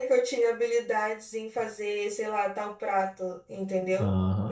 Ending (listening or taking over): taking over